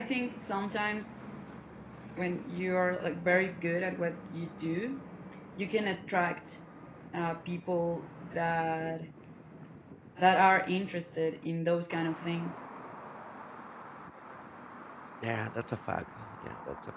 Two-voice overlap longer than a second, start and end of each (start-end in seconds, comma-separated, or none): none